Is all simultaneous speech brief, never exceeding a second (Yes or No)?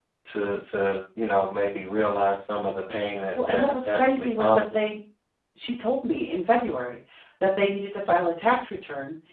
No